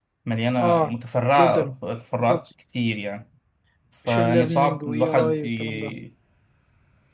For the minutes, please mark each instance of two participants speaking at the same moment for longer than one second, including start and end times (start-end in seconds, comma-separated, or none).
4.0-5.9